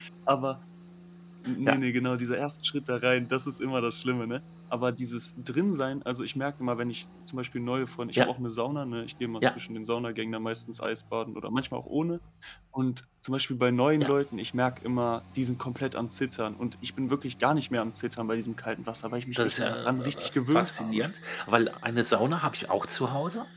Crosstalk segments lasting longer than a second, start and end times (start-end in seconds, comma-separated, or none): 19.4-21.1